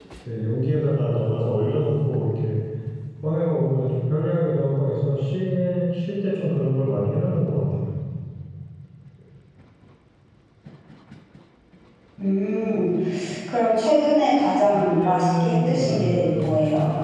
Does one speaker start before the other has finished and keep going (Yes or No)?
Yes